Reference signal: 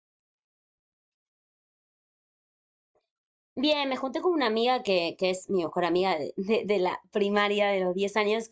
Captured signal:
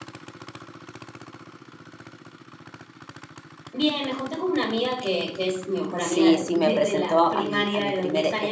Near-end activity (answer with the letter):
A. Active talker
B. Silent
A